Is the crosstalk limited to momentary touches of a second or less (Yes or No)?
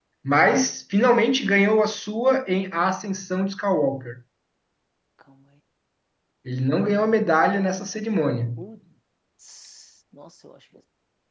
Yes